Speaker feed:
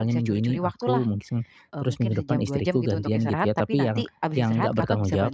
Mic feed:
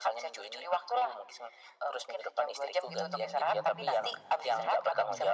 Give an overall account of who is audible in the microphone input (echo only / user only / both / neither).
both